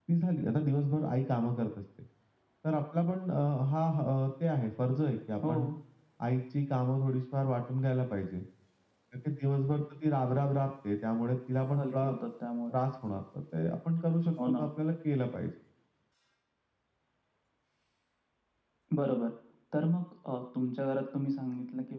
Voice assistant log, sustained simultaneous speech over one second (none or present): none